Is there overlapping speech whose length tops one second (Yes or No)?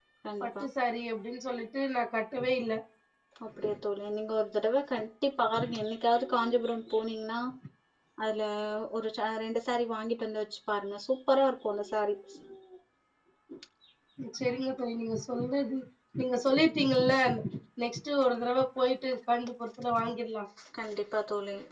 No